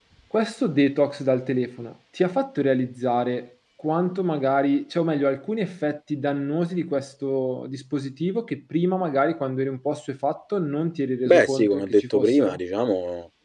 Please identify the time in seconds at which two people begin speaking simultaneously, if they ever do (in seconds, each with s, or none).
11.2 s